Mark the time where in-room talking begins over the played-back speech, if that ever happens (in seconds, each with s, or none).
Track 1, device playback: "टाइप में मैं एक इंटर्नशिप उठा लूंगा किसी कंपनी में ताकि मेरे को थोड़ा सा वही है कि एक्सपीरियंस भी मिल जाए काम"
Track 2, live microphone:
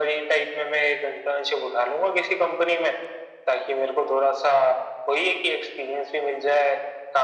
none